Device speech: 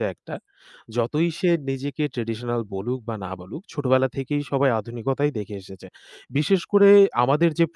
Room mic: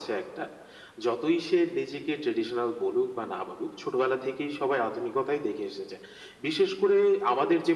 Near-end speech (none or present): none